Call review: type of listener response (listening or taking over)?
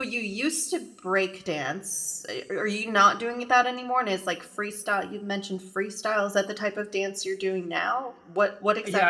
taking over